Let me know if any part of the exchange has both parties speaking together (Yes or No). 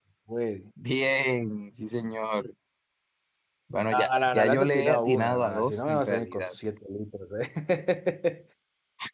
Yes